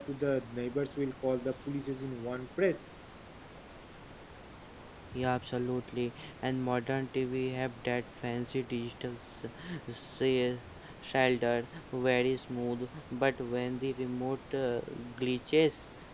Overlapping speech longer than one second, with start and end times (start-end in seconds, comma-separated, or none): none